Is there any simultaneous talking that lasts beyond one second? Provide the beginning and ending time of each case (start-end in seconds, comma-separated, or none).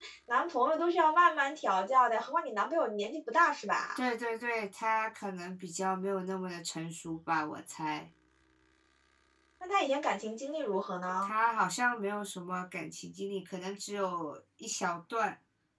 none